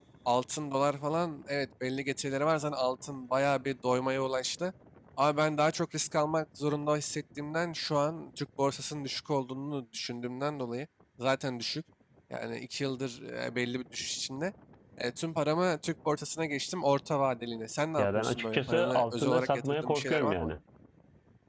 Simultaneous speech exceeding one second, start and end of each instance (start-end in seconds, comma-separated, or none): 18.0-20.5